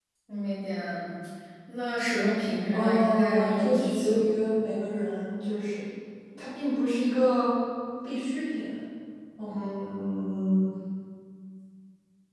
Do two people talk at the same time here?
Yes, from 2.7 s

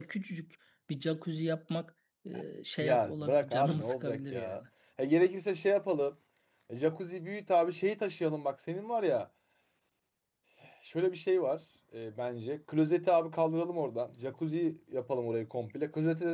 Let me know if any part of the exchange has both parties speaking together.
Yes, from 2.8 s

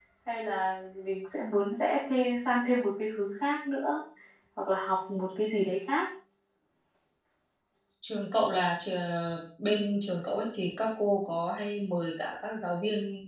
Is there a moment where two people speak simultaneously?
No

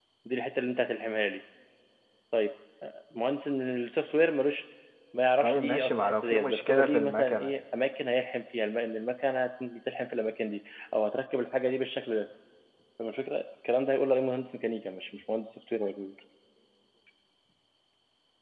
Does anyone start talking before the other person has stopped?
Yes, from 5.4 s

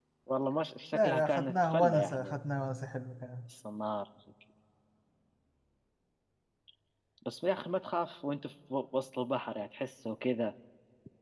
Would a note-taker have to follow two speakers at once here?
Yes, from 0.9 s

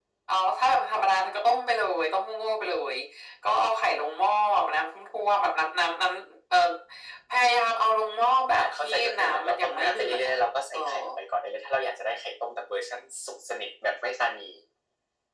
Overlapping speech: Yes, from 8.6 s

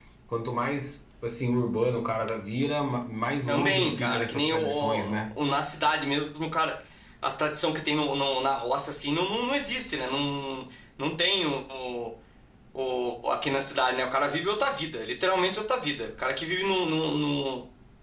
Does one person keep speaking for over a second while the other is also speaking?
Yes, from 3.5 s

